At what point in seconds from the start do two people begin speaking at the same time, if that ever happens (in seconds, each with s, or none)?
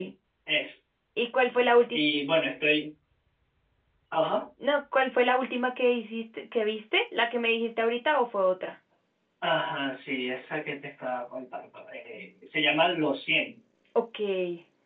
none